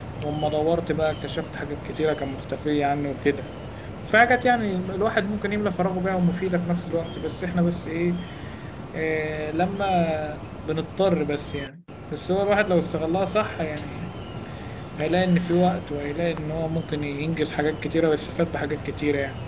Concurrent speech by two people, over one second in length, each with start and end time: none

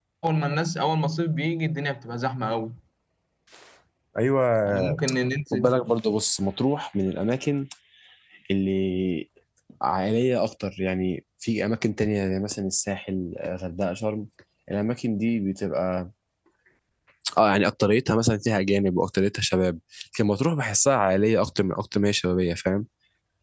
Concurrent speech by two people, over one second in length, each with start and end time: none

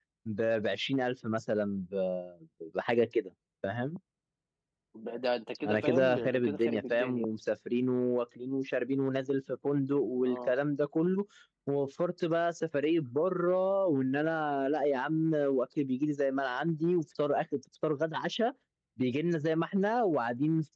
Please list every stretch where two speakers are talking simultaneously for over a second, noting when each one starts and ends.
5.6-7.2

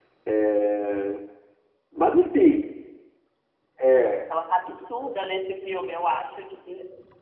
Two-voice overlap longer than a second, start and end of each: none

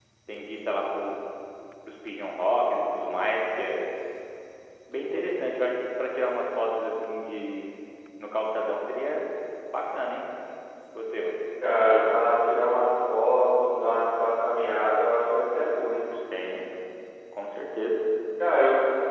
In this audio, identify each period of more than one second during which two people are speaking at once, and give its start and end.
none

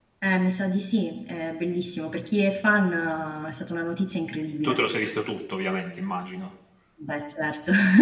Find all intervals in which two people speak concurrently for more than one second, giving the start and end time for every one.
none

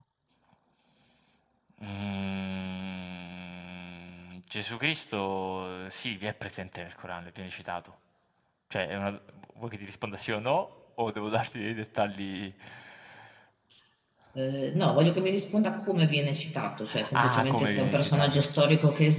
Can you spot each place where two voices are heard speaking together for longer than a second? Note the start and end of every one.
17.1-18.4

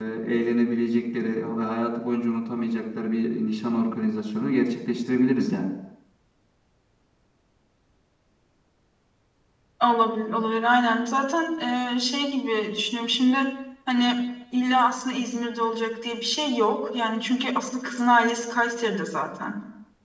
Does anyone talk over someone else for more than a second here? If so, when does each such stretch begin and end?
none

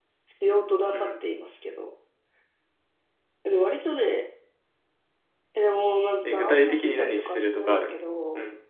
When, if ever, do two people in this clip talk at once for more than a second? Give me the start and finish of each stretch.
6.2-8.0

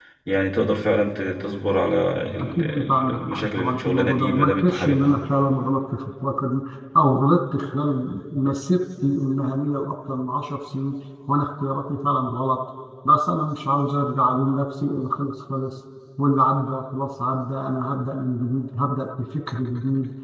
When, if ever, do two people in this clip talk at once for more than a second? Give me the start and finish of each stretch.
2.4-5.1

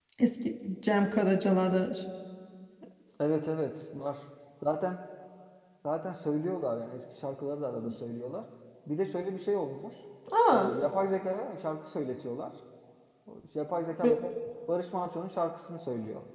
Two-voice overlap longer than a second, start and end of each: none

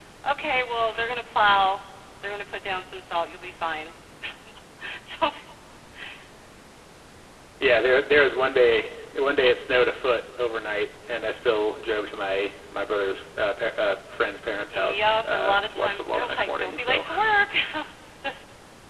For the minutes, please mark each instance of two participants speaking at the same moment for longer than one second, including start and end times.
14.7-17.1

